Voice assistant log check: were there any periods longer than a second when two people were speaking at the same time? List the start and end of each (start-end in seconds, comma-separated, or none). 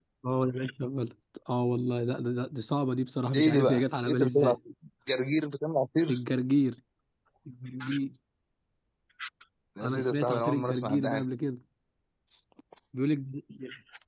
3.3-4.6, 9.8-11.2